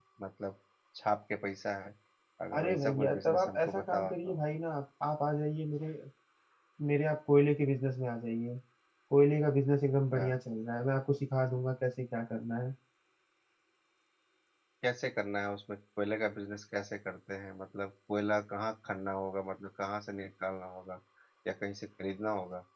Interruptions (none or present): present